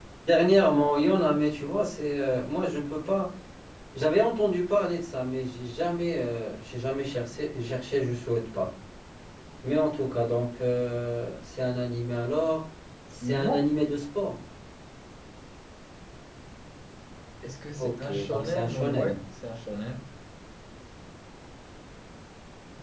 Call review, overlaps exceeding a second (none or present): present